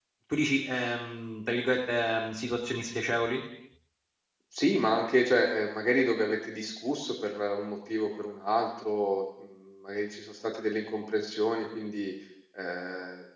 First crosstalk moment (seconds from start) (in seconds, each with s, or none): none